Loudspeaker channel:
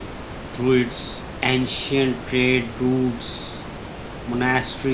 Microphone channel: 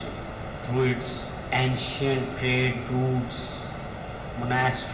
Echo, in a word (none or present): present